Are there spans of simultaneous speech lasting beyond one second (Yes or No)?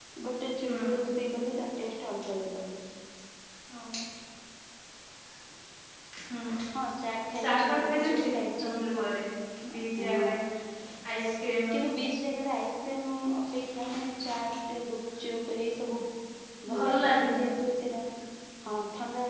Yes